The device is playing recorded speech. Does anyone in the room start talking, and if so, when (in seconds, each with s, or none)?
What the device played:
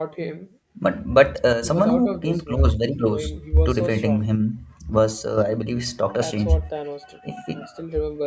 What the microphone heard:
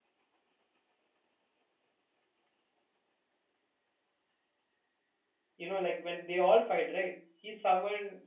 5.6 s